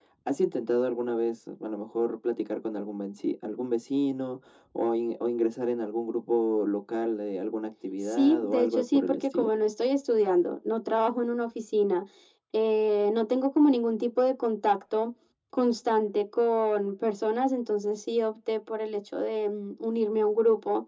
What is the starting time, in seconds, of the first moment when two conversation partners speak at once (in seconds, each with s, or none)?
8.0 s